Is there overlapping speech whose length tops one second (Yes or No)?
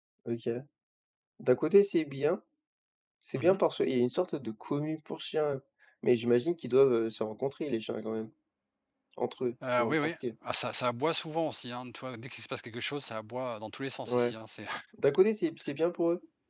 No